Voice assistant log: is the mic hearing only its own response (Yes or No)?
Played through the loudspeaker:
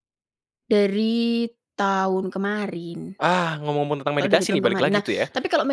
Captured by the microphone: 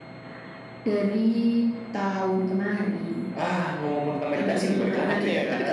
No